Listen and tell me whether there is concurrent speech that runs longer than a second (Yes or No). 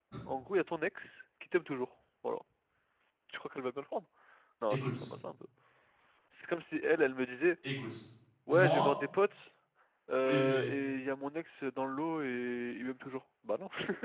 No